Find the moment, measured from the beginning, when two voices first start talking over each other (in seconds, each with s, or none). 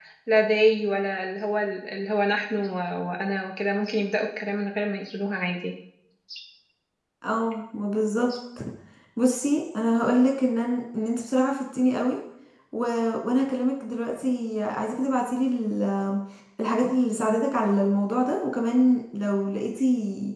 none